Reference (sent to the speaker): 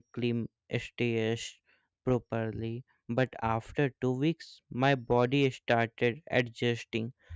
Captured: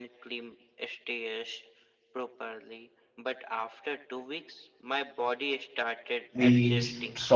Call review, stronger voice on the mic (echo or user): user